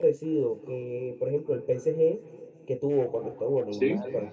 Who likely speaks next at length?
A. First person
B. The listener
A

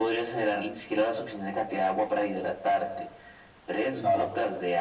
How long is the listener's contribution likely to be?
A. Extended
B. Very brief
B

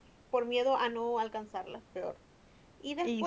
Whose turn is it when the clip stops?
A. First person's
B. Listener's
A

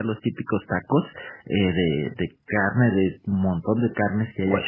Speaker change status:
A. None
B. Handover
B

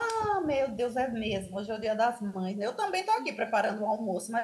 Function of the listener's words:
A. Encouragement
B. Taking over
A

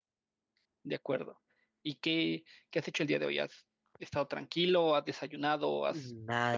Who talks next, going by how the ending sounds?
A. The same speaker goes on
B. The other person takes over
B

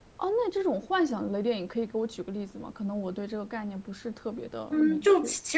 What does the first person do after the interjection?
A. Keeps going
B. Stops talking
B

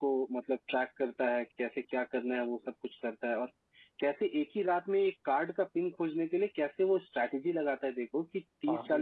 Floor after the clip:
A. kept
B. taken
A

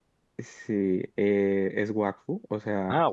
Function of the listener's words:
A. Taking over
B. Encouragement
B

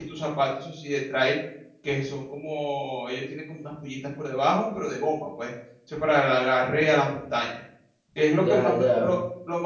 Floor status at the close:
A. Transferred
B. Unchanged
B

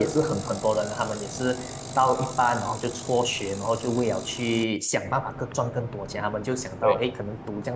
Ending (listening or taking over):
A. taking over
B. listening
B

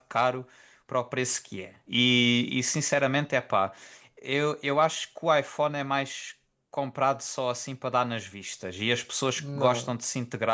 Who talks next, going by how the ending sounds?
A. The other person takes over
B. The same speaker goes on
B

